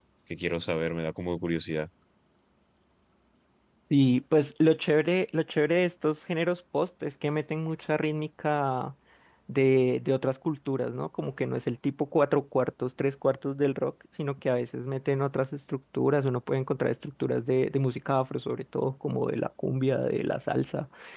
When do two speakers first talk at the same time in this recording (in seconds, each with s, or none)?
none